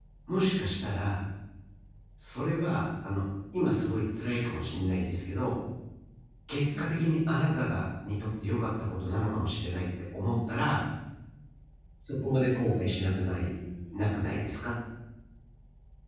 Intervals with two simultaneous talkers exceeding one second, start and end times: 12.2-13.5

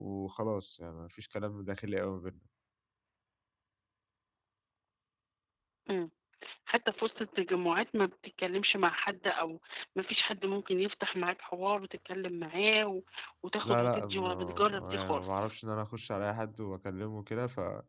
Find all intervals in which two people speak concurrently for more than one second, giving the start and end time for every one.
13.6-15.5

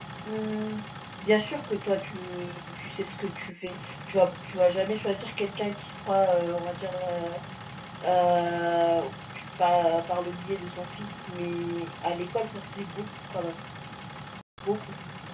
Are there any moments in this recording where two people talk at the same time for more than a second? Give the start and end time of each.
none

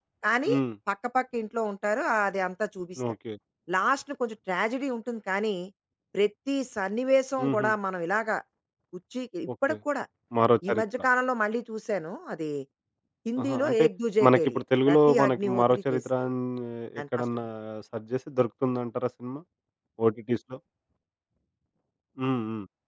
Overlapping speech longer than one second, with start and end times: 14.3-16.0

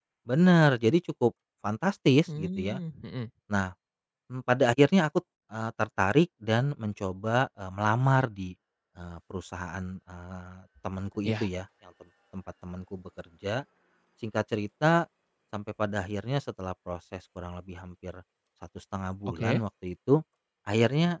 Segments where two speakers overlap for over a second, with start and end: none

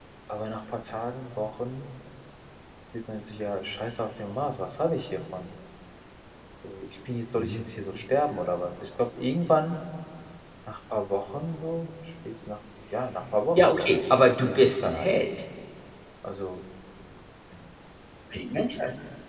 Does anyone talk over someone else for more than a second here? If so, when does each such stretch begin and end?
13.6-15.1

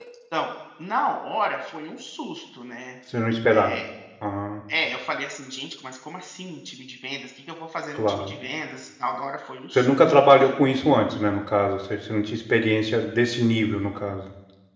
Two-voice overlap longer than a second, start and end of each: none

